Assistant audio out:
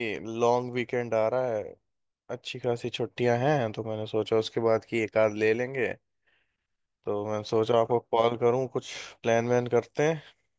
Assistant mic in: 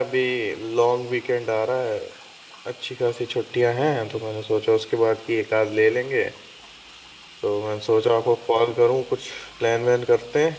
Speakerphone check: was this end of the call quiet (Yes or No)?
Yes